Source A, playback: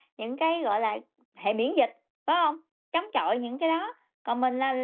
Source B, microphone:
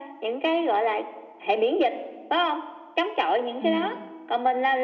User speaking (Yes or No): Yes